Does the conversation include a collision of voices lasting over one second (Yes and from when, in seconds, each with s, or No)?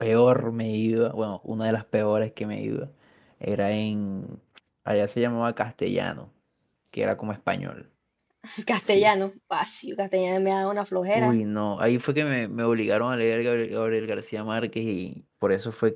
No